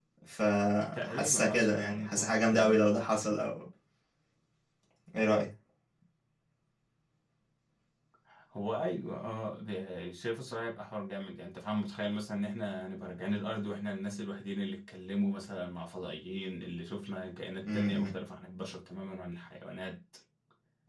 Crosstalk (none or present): present